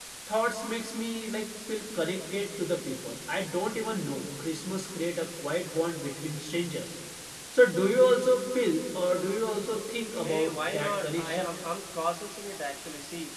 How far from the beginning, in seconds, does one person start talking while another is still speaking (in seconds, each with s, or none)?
10.2 s